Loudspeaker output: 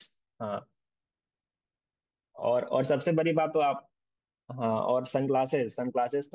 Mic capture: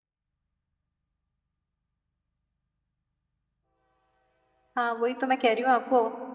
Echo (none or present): none